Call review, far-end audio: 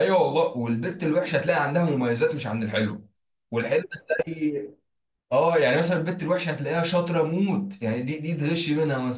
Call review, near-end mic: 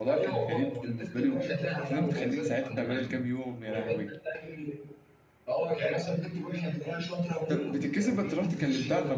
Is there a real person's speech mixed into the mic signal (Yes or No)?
Yes